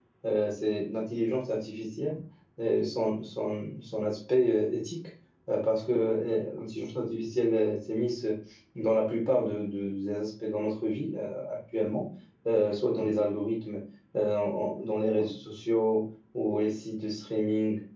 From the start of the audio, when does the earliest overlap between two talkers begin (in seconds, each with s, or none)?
none